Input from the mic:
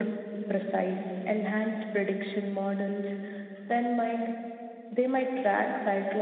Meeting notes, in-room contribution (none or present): none